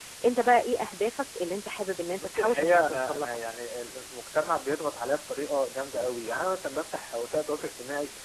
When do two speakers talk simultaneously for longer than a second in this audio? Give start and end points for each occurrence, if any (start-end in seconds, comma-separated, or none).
2.2-3.4